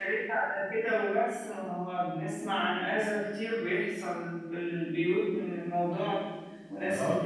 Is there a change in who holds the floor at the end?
No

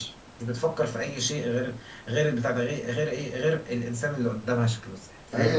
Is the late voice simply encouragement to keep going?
No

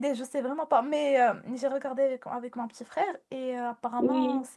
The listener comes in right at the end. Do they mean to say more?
No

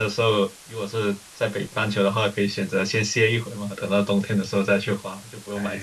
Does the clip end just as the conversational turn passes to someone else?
Yes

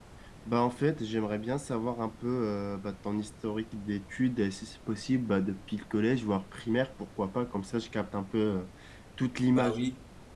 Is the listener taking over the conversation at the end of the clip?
Yes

